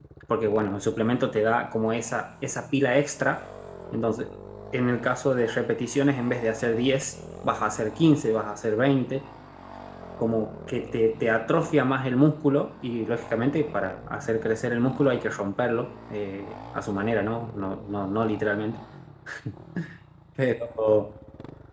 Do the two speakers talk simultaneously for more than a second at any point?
No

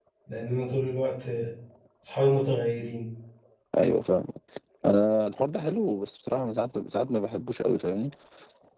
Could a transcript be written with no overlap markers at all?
Yes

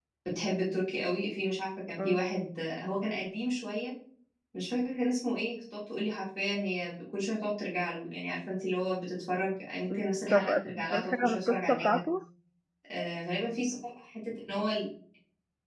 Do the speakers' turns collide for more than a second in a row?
Yes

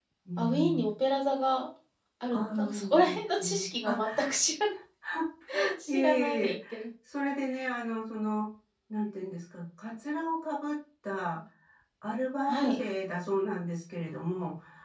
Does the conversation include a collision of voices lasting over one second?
Yes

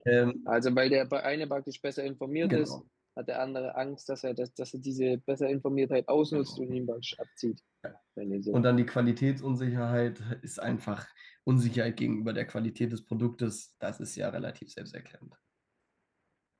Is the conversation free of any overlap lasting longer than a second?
Yes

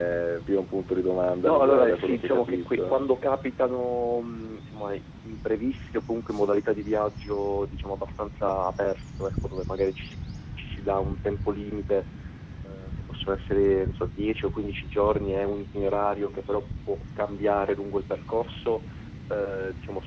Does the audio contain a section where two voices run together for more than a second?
Yes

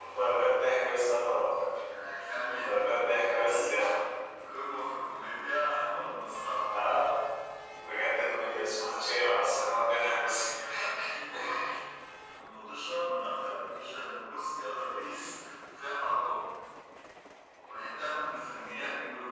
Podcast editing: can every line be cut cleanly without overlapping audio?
No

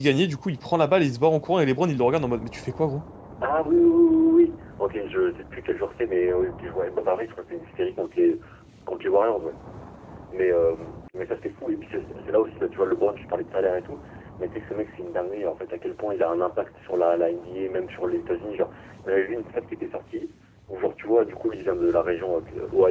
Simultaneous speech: No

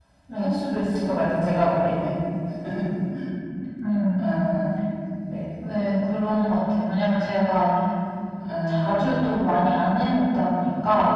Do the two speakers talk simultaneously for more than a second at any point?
No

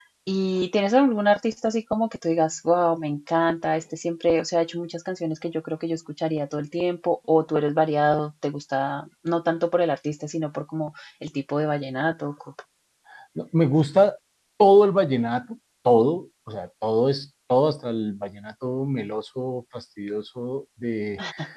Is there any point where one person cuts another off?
No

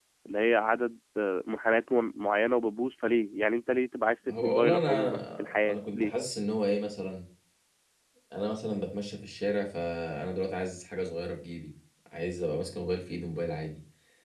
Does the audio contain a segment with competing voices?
Yes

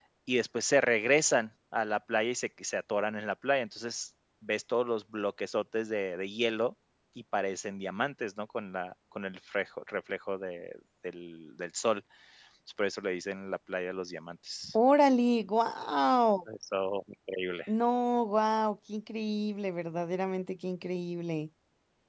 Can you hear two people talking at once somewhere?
No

